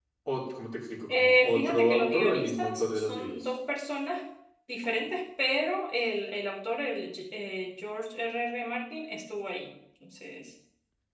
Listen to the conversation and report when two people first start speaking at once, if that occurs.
1.1 s

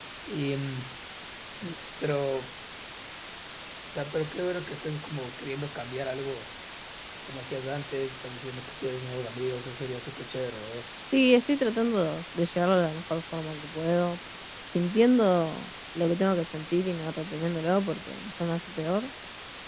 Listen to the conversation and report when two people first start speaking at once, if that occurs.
none

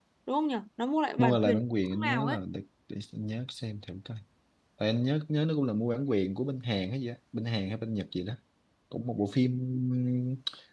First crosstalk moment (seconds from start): 1.2 s

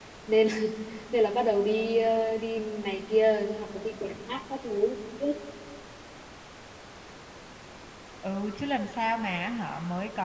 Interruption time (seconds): none

